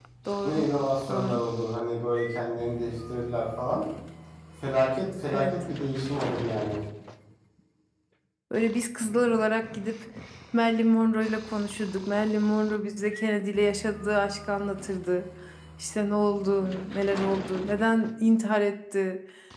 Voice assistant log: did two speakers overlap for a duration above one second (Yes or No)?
No